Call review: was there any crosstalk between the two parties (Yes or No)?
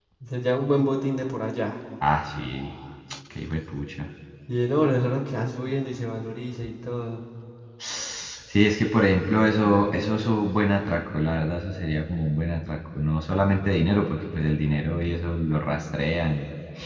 No